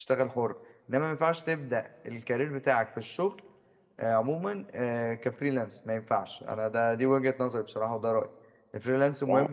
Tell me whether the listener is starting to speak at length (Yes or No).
No